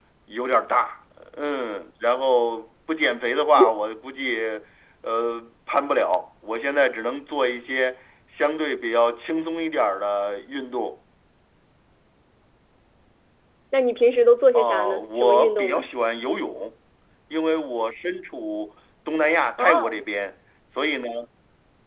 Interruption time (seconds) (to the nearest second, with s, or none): 15 s